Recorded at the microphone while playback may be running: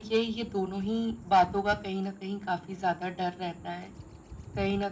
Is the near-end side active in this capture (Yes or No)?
No